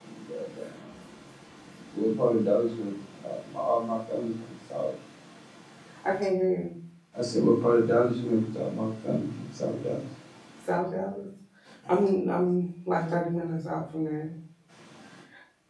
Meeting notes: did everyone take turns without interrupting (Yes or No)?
Yes